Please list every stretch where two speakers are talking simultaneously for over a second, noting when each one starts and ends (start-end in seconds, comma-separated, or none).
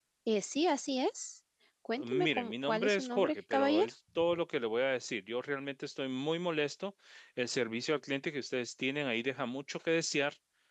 2.0-3.9